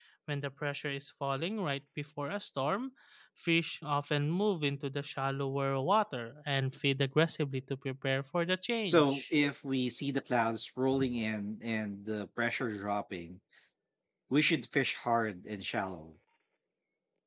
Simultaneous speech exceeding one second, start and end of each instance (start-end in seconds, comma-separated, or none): none